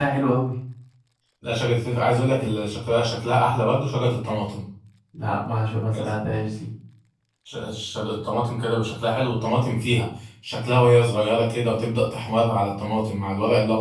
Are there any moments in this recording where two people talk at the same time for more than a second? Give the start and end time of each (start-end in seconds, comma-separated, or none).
none